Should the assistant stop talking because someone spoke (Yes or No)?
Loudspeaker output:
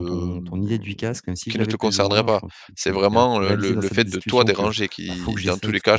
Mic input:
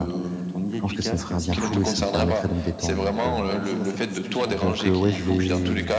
Yes